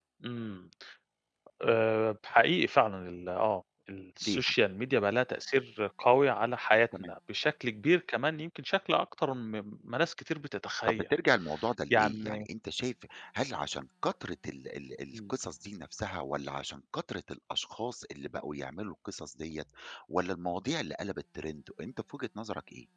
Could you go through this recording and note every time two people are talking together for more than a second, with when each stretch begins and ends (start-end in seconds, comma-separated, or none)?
none